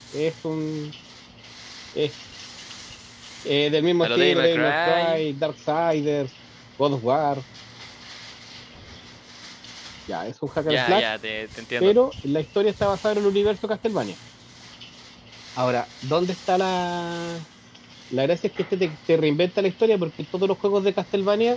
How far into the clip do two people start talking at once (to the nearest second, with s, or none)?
4 s